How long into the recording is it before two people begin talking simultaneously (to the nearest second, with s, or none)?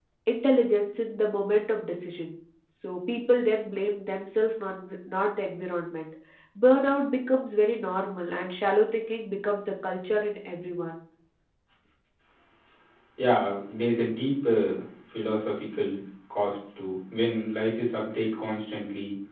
none